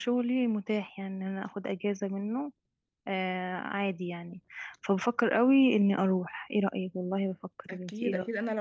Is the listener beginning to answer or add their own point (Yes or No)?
Yes